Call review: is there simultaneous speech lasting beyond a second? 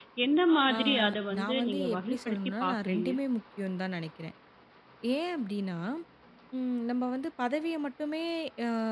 Yes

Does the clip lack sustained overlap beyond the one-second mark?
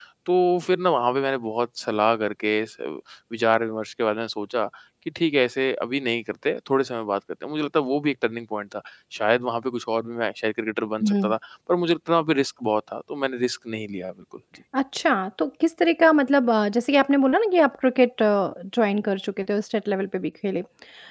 Yes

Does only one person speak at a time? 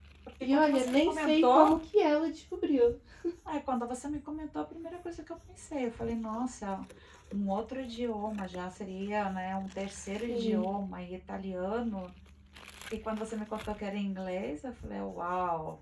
No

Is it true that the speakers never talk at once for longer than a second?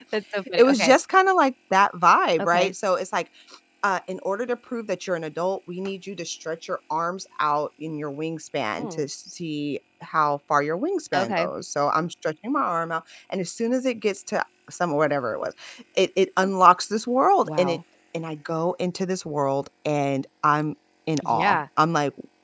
Yes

